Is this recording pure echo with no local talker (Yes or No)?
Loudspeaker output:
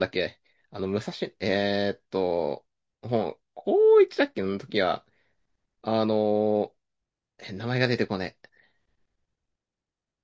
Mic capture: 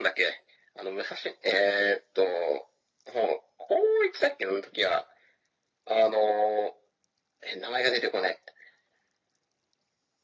Yes